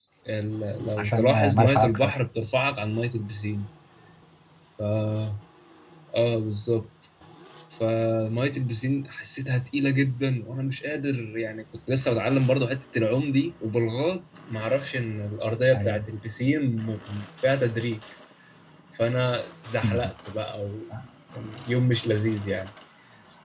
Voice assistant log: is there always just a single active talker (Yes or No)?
No